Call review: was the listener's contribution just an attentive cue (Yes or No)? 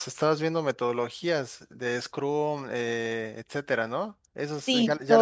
No